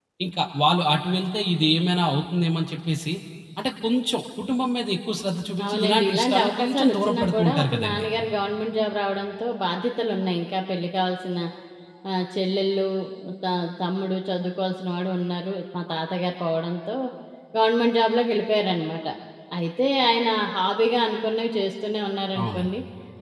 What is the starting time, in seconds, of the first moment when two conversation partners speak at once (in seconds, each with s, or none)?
5.7 s